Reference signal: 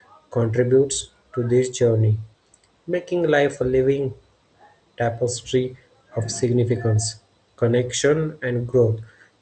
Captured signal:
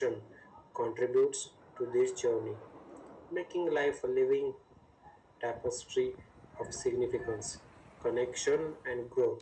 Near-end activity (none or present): none